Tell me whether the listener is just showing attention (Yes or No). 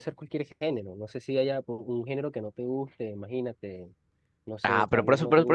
No